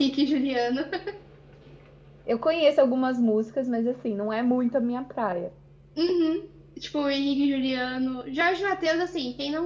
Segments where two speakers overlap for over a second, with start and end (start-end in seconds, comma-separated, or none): none